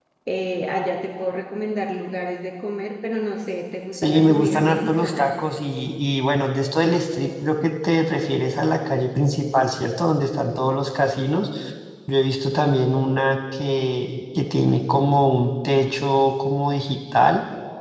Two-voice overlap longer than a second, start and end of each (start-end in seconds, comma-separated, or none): 3.9-5.2